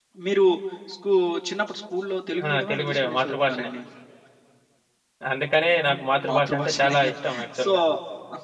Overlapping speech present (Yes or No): Yes